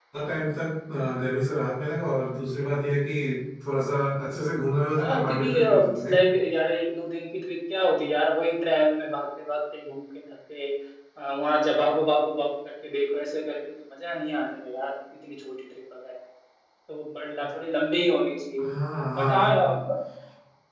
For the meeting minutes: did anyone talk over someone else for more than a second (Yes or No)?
Yes